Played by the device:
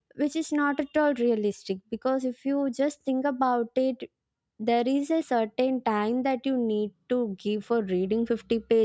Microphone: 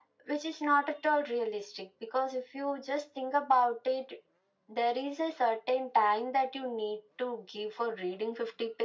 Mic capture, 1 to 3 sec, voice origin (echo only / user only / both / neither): echo only